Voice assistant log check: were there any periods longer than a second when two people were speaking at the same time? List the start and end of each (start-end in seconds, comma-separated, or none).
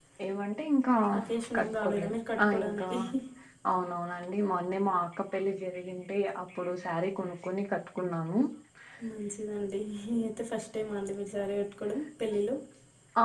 1.6-2.9